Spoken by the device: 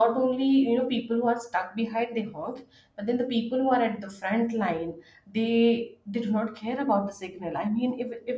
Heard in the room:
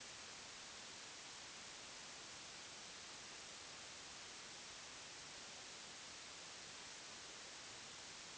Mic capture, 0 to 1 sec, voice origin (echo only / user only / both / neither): neither